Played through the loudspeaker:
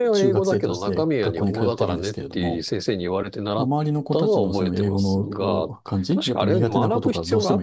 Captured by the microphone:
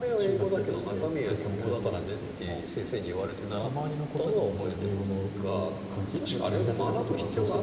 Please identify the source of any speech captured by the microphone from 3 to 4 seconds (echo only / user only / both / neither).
echo only